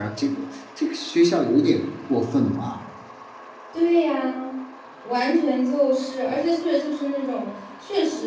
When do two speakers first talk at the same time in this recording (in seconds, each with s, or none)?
none